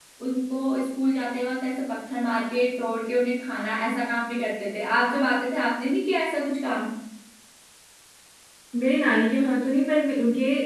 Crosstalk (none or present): none